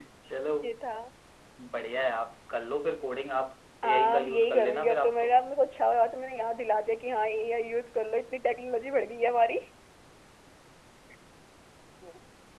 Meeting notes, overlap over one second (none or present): present